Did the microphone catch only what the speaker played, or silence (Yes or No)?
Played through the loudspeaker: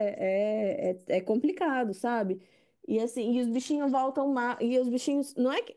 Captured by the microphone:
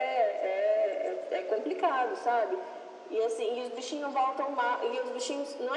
Yes